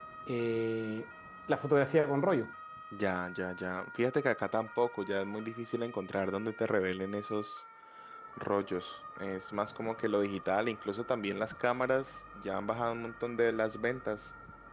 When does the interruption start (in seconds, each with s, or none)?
none